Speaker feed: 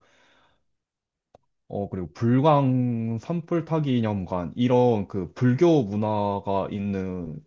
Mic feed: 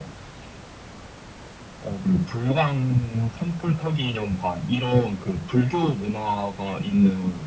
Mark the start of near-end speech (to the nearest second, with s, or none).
none